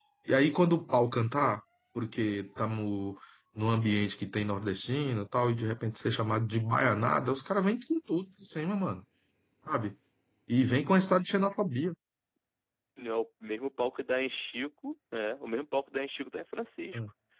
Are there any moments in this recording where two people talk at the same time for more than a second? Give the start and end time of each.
none

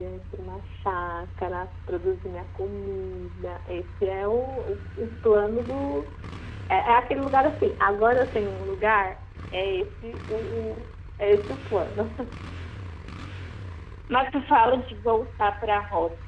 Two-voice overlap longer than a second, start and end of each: none

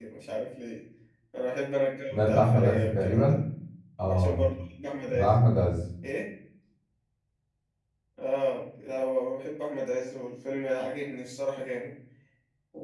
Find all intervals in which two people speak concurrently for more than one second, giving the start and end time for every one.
2.1-3.4

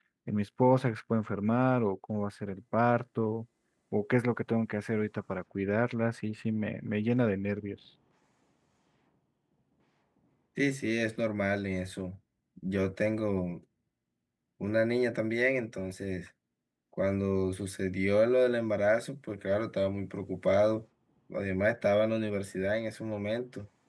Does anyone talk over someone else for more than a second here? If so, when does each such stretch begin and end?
none

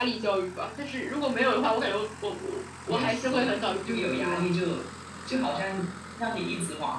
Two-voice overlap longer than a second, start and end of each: 2.9-4.4

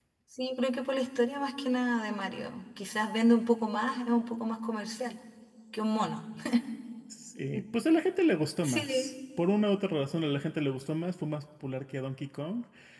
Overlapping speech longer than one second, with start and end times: none

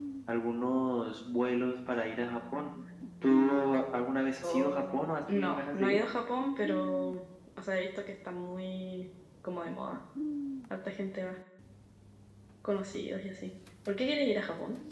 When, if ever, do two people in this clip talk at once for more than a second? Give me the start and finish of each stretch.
4.4-6.0

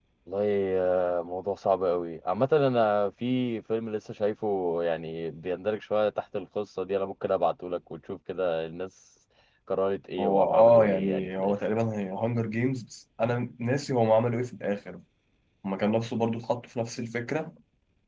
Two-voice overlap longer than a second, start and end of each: 10.2-11.5

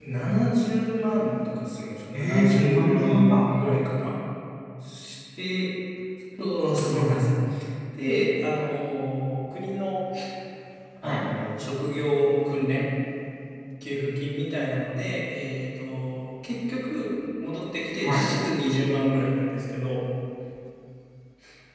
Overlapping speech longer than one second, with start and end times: 2.1-3.4

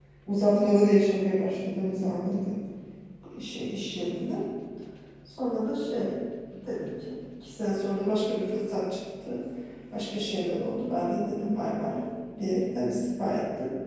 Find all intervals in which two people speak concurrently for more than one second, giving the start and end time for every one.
none

